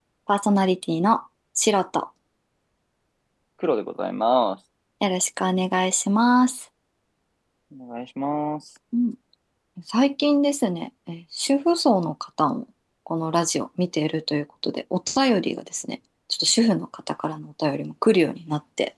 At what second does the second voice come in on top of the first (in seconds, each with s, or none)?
none